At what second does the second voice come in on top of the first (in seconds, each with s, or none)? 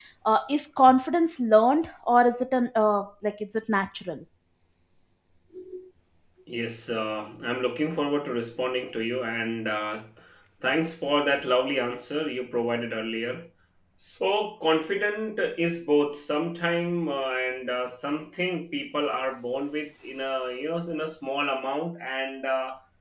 none